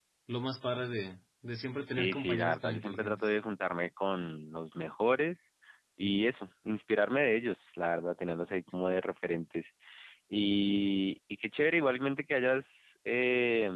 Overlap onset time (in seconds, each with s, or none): 2.0 s